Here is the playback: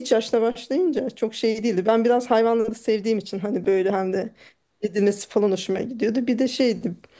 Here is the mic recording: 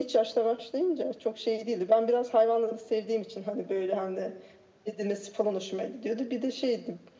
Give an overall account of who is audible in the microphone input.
echo only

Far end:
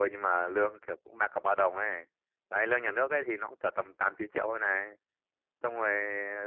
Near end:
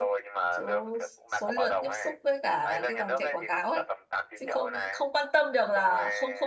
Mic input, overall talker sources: both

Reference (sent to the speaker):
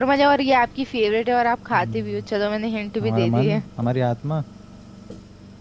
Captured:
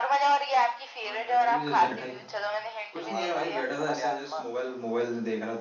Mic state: both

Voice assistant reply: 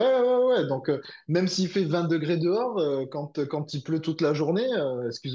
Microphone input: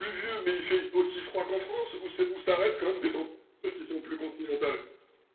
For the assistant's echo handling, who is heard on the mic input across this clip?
user only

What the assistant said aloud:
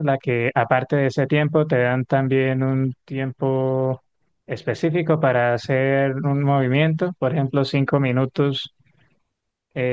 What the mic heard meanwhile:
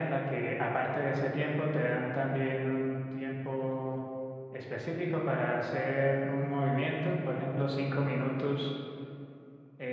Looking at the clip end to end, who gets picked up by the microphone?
echo only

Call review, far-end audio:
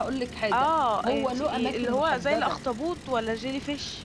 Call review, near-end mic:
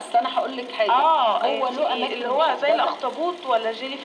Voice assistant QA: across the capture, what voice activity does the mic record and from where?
echo only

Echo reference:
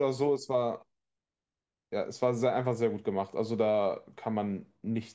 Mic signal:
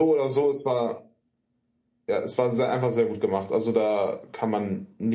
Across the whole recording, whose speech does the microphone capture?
echo only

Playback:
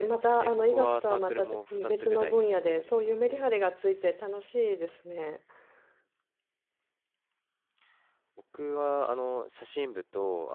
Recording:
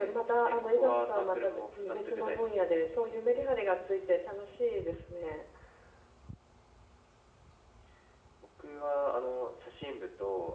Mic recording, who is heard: echo only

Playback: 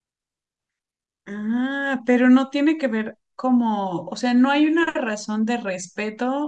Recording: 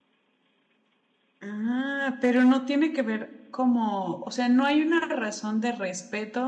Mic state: echo only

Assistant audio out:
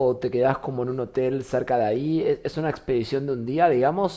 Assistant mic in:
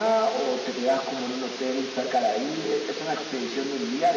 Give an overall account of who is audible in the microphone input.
echo only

